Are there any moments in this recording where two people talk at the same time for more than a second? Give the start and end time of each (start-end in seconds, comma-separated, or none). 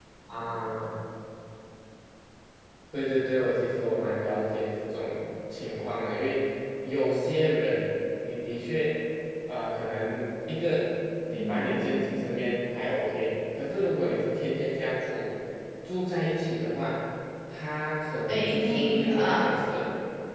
18.3-19.5